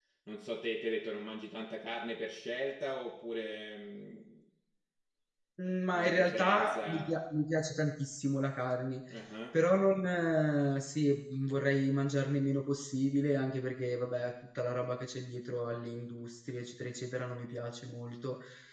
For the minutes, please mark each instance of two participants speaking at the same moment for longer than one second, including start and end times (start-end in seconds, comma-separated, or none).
5.9-7.2